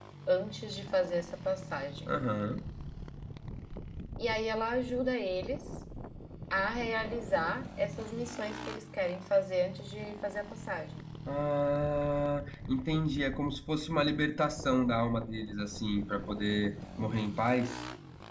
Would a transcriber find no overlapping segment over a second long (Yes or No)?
Yes